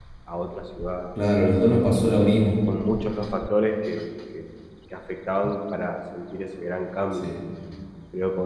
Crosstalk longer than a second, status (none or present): none